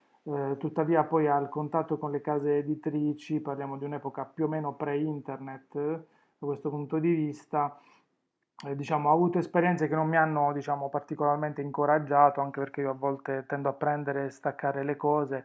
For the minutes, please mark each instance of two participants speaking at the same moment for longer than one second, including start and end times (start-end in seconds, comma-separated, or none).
none